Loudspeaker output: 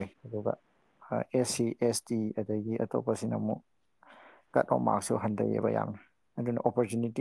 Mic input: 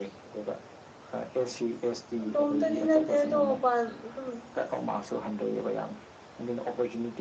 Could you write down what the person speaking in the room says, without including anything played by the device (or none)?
ꯏꯇꯣꯝꯇꯗꯤ ꯅꯠꯇꯦ ꯑꯗꯣ ꯃꯄꯥꯟ ꯑꯗꯨꯝ